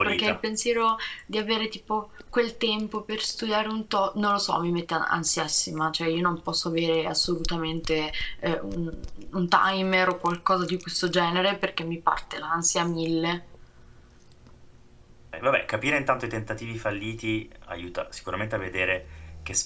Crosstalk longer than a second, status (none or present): none